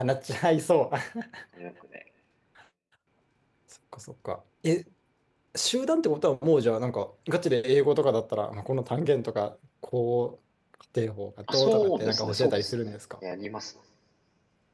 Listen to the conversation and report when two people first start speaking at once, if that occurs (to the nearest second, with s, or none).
12 s